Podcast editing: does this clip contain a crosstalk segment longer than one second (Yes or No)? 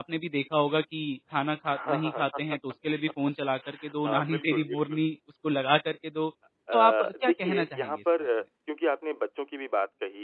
Yes